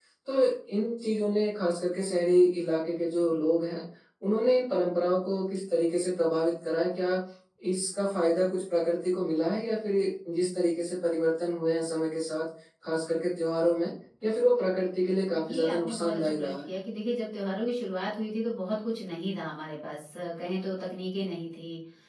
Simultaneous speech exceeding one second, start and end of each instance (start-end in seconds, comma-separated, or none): 15.3-16.7